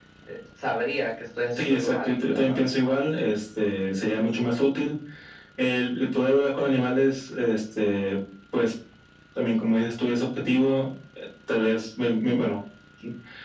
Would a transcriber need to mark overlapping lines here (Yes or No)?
Yes